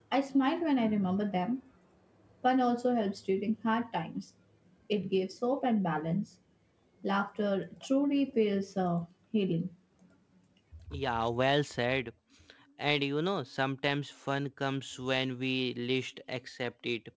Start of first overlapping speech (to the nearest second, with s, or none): none